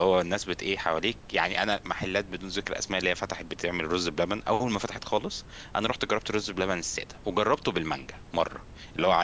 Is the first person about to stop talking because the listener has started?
No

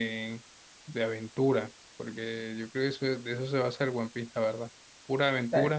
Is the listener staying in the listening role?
Yes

